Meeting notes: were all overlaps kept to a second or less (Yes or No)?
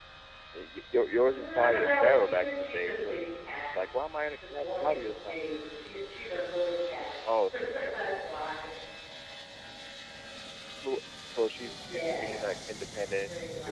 No